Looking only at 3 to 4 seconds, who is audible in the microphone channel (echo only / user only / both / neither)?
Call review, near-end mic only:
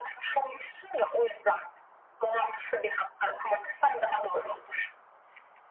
echo only